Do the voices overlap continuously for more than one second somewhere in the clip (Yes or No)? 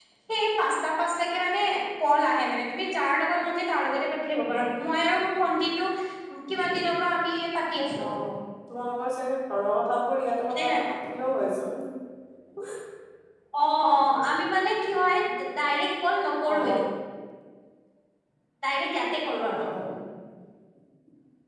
No